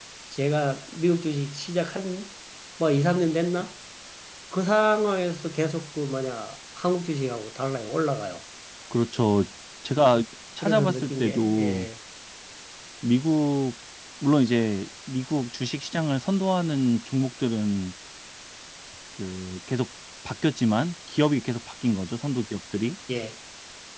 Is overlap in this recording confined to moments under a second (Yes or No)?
No